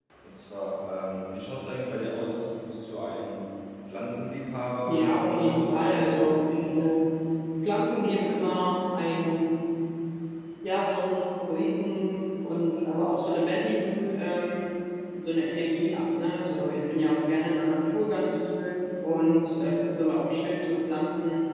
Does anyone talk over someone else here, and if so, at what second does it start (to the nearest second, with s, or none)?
5 s